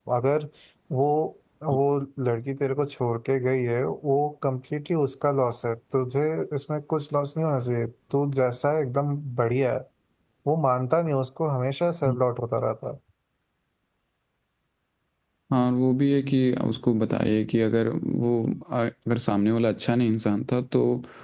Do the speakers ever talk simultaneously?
No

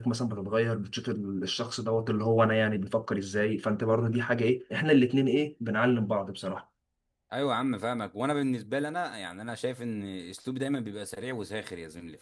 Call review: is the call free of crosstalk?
Yes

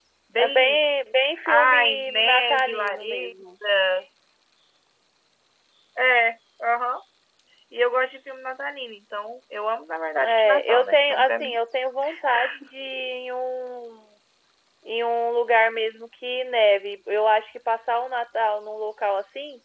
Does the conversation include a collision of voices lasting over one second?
Yes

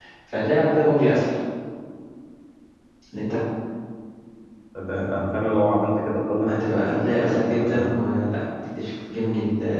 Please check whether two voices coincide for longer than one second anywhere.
Yes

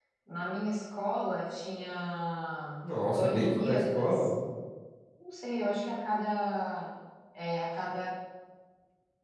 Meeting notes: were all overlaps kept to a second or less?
No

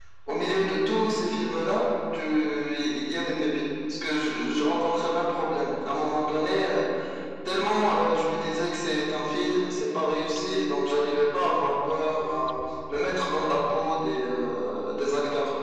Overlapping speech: No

